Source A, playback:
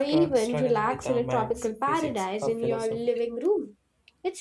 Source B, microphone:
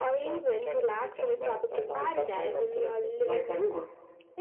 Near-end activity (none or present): present